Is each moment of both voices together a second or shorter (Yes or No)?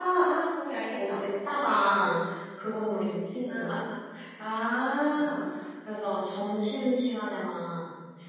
Yes